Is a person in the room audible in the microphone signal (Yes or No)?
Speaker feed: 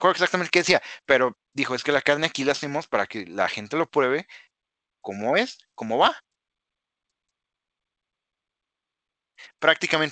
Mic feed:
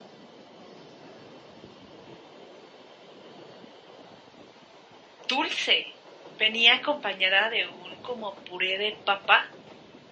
Yes